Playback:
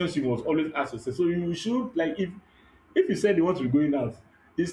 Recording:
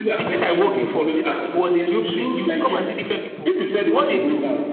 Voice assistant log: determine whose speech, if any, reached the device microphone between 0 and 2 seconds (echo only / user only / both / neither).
both